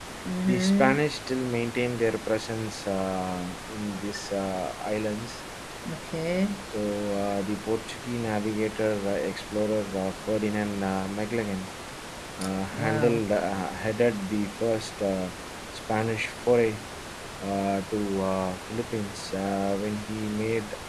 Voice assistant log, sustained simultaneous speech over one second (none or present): none